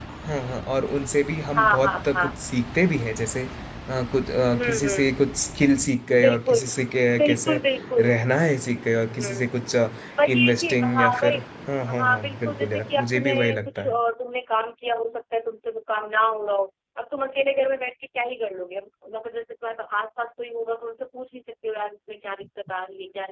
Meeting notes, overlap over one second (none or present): present